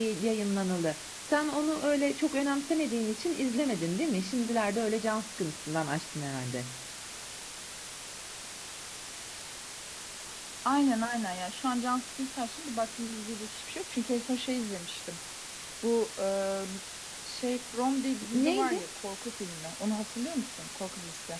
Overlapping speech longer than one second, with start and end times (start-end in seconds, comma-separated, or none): none